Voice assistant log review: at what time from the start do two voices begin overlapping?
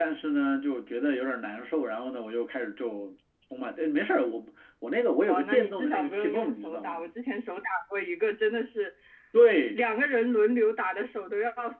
5.3 s

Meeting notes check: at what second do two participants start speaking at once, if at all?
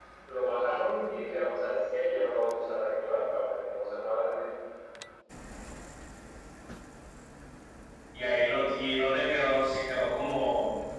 none

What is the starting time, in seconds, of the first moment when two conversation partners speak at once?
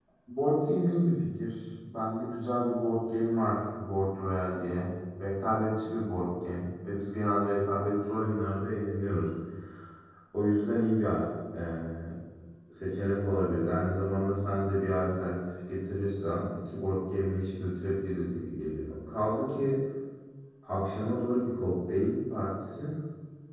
none

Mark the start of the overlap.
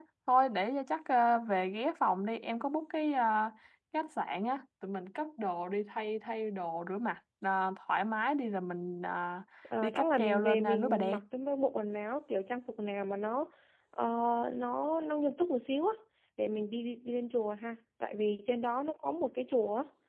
9.8 s

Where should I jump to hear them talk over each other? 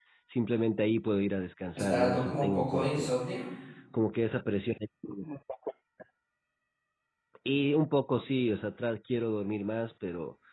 1.8 s

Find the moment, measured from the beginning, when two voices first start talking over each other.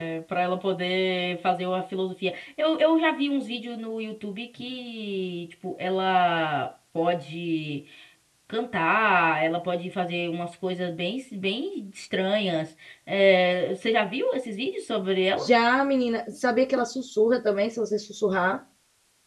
none

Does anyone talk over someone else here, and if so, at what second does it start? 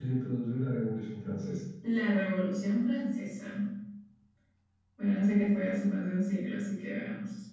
none

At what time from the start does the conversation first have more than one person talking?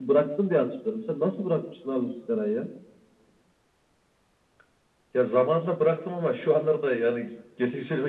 none

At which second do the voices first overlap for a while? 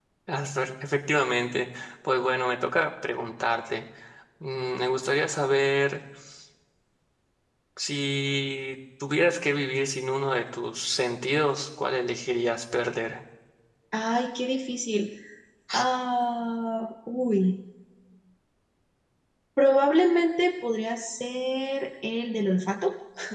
none

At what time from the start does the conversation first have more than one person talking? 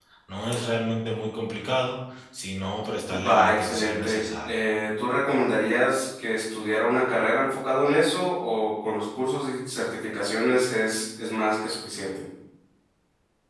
3.1 s

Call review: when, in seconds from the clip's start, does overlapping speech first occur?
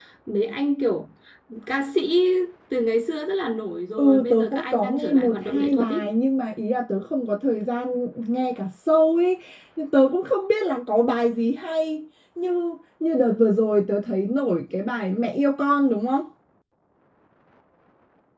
4.0 s

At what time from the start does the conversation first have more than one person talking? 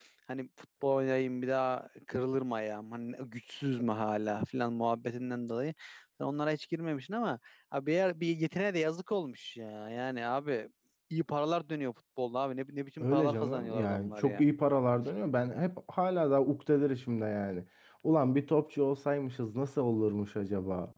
13.0 s

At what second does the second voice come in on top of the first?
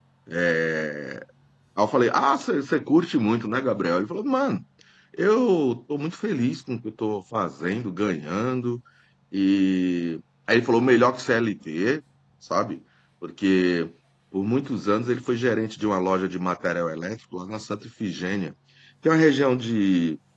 none

